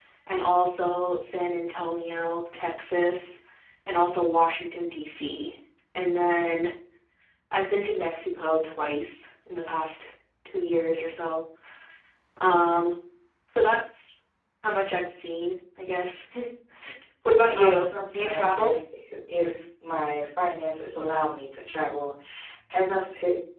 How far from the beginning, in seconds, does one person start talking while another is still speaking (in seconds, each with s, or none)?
17.6 s